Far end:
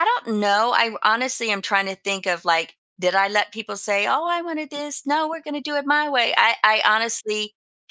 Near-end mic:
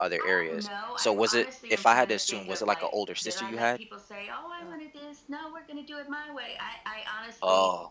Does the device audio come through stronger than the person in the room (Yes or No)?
No